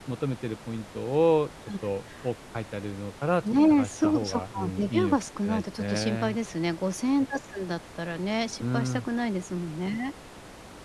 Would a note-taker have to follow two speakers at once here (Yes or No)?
Yes